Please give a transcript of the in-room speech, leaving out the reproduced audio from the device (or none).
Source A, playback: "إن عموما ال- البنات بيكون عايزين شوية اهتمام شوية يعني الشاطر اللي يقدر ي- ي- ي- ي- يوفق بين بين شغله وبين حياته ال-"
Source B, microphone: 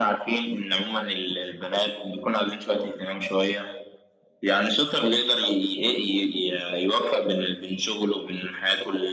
none